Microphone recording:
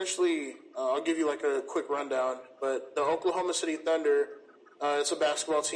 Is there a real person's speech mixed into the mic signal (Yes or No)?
No